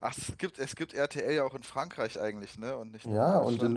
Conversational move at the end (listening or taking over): taking over